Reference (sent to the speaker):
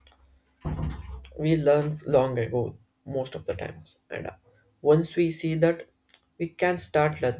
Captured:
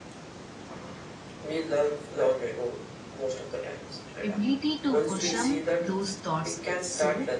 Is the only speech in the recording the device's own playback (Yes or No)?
No